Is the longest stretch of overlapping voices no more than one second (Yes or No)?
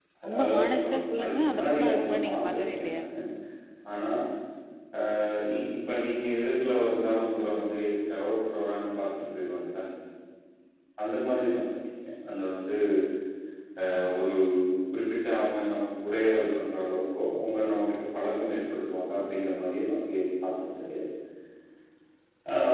No